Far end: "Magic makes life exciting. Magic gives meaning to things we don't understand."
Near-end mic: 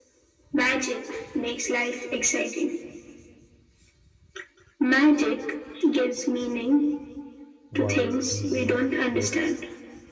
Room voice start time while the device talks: 8 s

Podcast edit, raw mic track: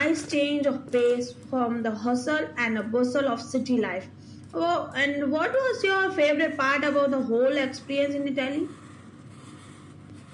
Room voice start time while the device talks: none

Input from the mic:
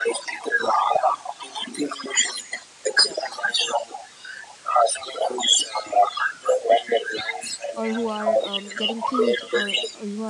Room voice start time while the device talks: 8 s

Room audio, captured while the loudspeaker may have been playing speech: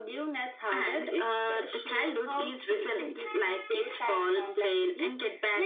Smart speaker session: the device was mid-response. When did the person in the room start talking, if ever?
none

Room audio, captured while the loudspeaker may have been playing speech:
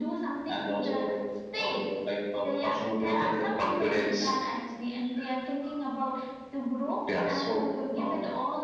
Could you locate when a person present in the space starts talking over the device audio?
none

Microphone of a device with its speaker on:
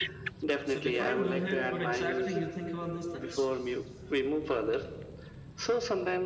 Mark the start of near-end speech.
1 s

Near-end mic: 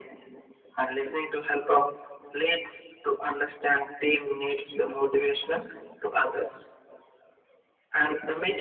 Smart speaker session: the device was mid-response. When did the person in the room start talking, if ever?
none

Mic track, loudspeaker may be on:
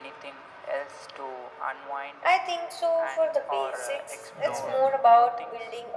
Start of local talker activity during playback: 4 s

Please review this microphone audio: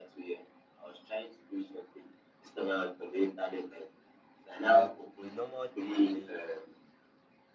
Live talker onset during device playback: 5 s

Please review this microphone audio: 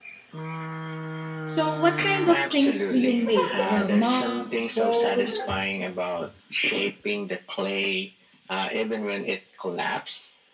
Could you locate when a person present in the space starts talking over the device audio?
1 s

